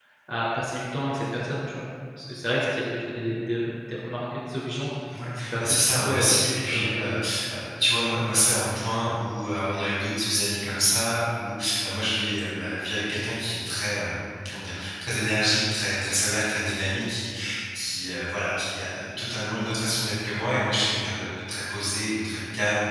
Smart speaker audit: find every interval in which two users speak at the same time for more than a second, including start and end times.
5.4-7.1

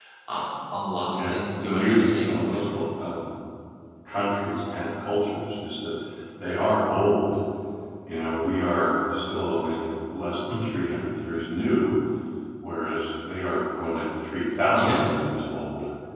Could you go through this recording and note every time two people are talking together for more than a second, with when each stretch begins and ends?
1.1-2.7

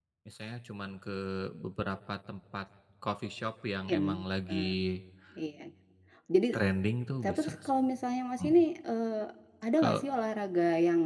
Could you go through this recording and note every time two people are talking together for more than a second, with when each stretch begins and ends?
none

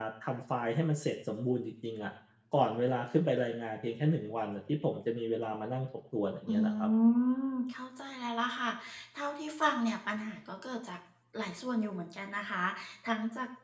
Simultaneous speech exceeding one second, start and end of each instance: none

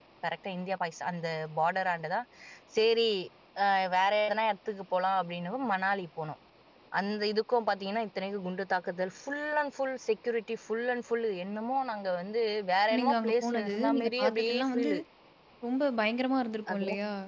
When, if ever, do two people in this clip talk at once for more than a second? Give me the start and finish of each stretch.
13.0-14.9

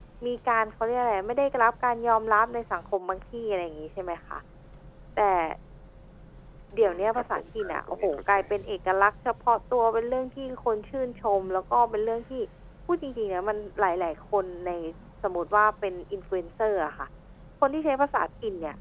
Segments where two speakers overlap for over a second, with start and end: 6.8-8.4

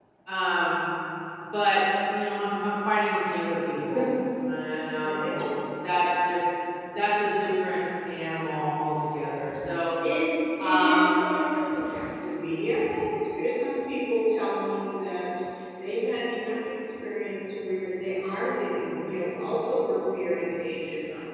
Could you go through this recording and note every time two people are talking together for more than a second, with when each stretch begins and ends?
none

